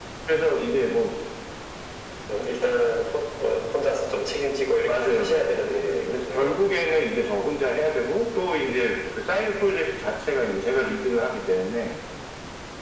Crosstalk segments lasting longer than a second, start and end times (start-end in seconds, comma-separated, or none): 4.8-6.6